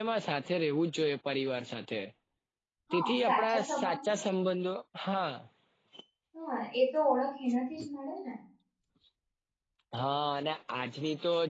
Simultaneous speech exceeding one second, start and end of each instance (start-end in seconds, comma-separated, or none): 2.9-4.2